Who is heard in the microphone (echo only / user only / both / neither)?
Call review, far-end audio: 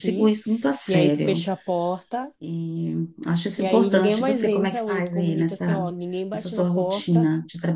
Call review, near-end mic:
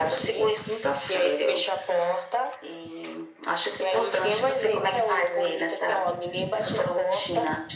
echo only